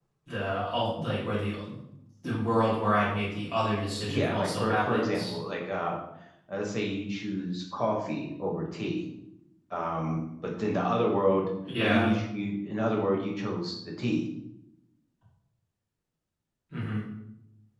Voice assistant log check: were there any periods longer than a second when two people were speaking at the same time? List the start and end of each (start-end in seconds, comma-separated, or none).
4.1-5.3